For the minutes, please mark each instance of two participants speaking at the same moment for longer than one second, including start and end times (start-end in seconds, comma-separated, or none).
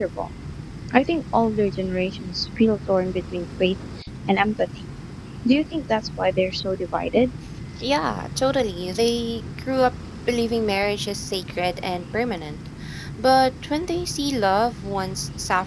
none